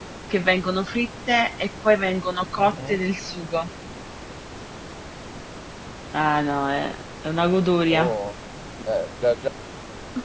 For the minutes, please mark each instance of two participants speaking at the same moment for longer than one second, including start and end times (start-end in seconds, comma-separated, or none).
none